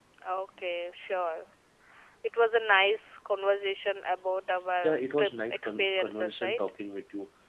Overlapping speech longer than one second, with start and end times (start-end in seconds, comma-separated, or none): 4.8-6.6